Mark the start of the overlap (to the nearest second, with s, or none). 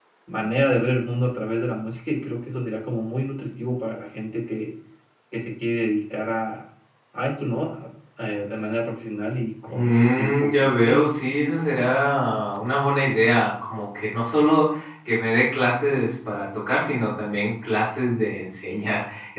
10 s